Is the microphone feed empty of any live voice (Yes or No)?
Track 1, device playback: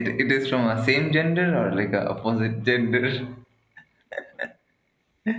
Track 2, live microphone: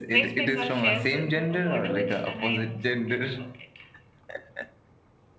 No